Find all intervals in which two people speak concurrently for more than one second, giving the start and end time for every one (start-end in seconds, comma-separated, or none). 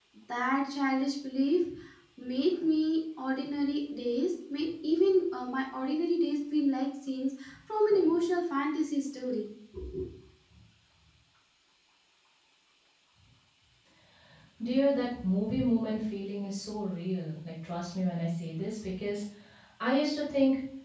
none